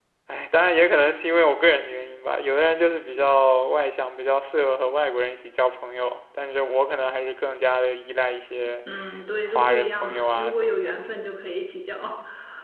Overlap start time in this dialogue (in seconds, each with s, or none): 9.5 s